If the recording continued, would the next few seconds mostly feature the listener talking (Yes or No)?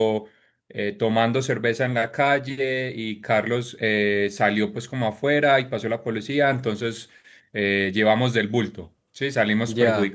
Yes